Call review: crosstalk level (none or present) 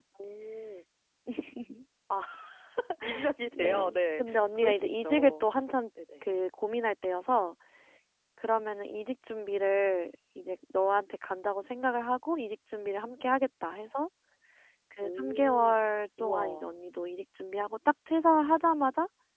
present